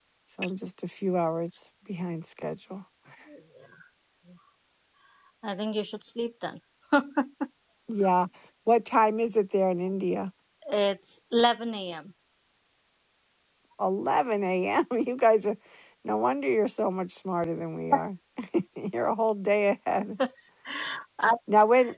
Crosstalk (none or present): none